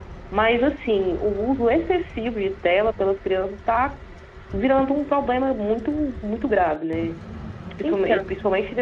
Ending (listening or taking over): listening